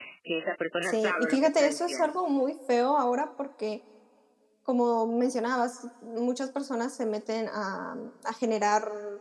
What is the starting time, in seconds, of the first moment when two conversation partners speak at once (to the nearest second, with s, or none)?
1 s